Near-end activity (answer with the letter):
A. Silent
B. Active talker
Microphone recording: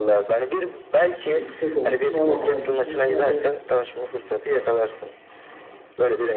B